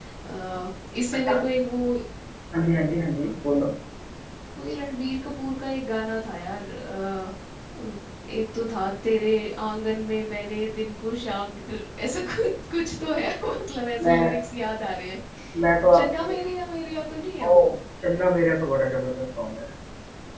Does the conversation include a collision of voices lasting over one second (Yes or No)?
No